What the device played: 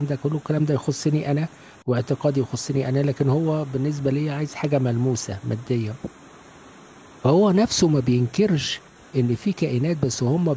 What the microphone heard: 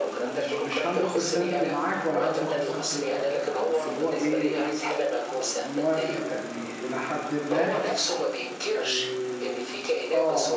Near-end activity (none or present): present